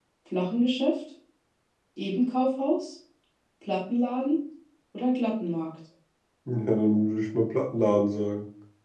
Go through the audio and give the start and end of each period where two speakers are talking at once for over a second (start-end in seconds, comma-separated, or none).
none